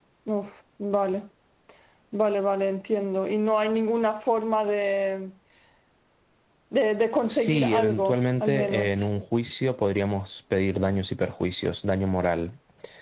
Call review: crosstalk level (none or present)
present